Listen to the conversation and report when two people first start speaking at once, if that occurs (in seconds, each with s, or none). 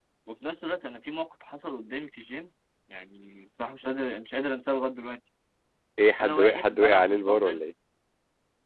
6.2 s